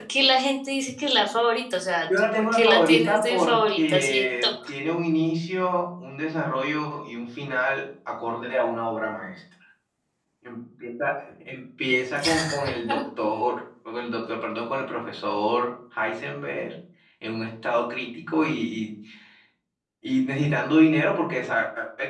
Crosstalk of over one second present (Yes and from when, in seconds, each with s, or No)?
Yes, from 2.2 s